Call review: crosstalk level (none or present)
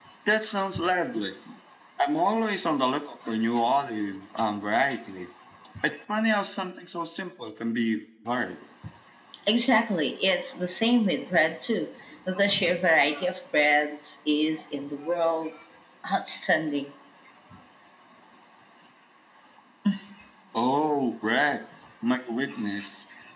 none